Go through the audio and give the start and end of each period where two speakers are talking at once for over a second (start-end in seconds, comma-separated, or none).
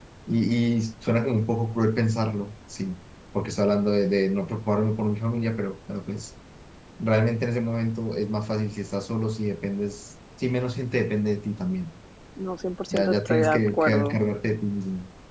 12.9-14.2